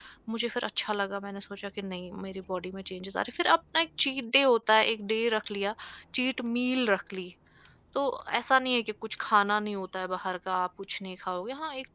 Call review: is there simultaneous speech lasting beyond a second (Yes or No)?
No